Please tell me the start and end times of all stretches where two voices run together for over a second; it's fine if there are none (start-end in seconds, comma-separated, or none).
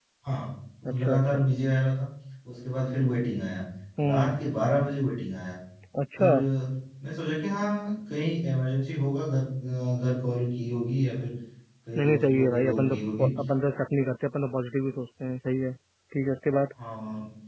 12.0-13.3